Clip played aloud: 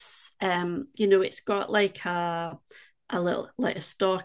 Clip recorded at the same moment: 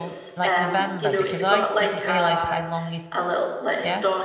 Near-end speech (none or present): present